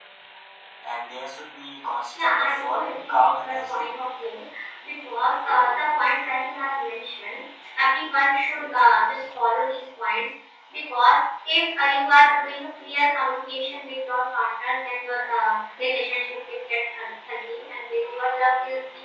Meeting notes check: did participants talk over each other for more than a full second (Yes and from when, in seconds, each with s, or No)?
Yes, from 2.1 s